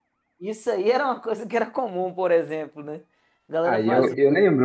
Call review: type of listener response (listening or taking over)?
taking over